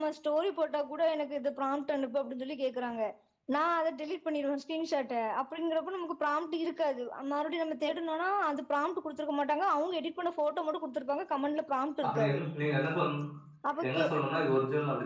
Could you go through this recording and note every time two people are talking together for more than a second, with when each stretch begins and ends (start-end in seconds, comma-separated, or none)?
none